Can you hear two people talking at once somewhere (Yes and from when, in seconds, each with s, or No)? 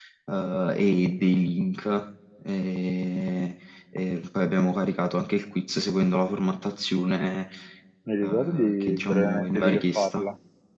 Yes, from 8.2 s